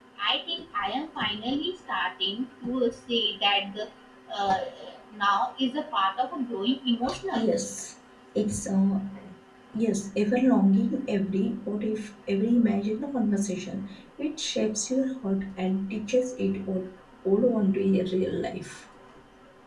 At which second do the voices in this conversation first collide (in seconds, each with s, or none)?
none